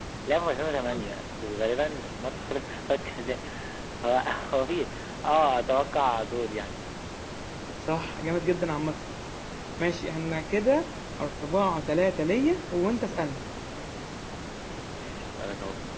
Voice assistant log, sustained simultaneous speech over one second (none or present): none